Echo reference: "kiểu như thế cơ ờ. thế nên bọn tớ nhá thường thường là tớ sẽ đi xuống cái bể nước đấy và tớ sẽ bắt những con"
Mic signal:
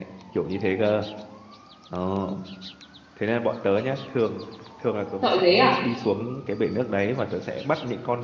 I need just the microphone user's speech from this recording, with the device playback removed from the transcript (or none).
sợ dế à